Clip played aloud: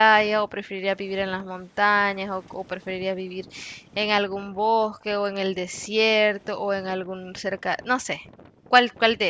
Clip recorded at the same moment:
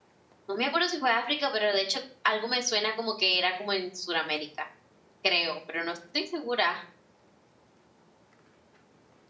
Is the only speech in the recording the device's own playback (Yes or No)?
No